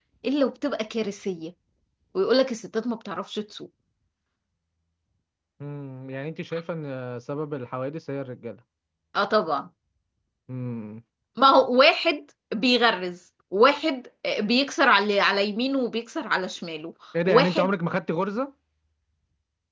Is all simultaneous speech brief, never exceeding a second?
Yes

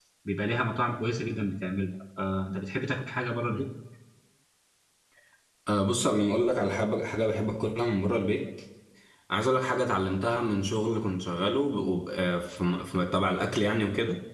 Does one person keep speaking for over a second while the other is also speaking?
No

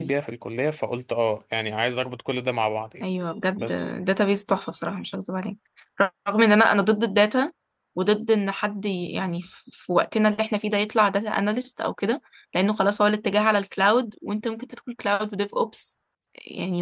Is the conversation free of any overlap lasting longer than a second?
Yes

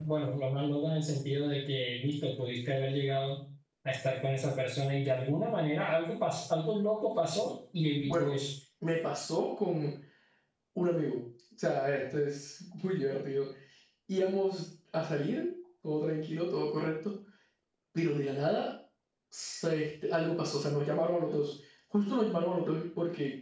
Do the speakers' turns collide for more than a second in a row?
No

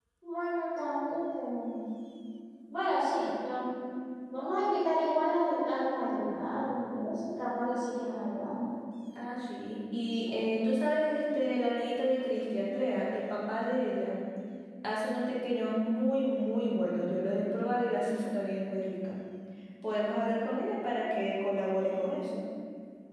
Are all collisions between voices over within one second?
Yes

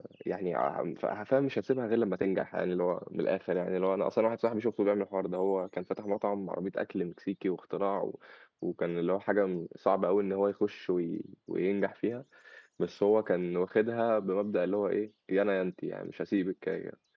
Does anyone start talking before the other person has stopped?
No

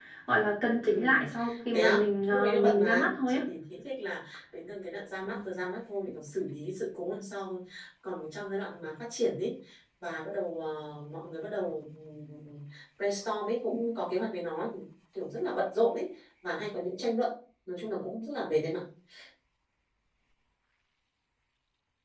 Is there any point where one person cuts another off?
Yes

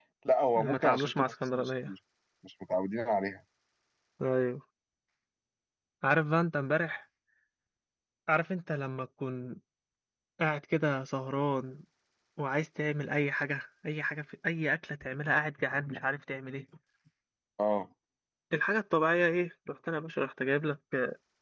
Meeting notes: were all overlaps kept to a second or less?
No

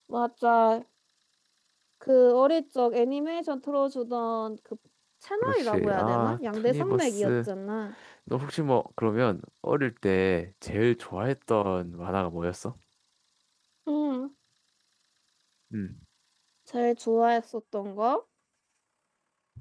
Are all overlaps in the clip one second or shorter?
No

